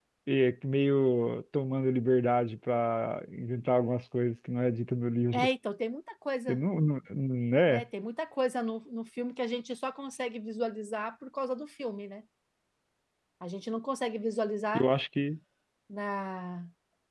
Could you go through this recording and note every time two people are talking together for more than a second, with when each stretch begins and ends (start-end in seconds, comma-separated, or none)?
none